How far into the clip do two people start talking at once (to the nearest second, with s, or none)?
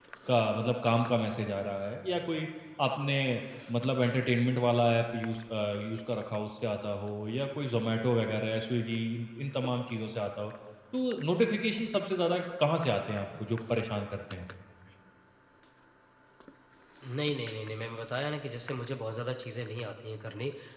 none